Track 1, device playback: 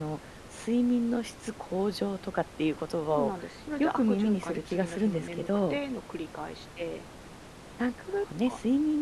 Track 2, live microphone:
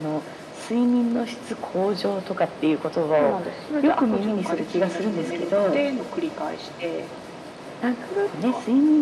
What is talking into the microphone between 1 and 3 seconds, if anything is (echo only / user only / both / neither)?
echo only